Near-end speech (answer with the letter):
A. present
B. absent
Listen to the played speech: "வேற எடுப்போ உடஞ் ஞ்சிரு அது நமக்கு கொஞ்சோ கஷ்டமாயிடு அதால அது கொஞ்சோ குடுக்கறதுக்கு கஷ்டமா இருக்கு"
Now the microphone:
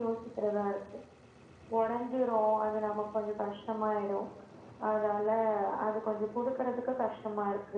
B